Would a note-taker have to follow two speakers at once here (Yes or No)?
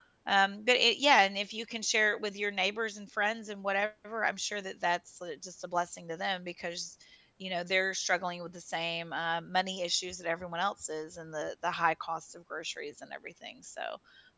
No